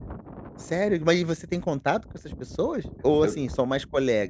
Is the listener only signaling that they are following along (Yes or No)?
Yes